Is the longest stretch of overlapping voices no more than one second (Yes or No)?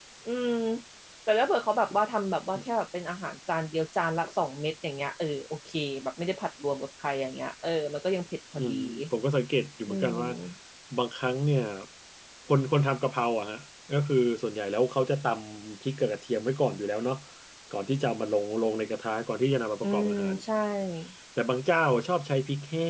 Yes